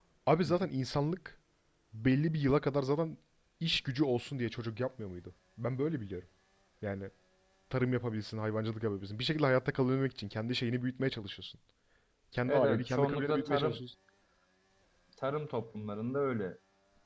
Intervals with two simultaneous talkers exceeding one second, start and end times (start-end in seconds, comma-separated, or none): 12.5-13.8